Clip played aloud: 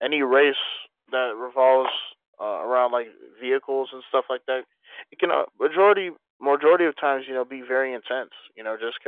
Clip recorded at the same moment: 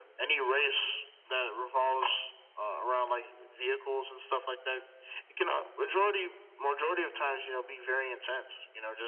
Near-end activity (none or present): none